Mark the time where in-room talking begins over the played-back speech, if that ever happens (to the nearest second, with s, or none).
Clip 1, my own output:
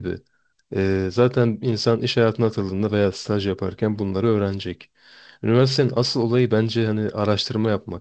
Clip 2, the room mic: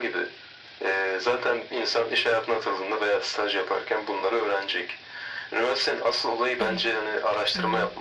7 s